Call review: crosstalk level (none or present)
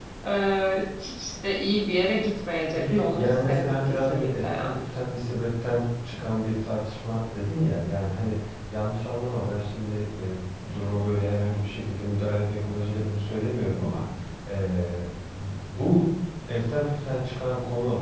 present